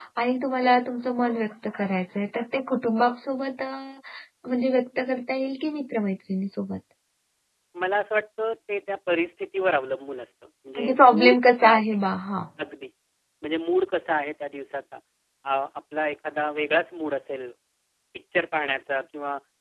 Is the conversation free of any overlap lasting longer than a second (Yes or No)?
No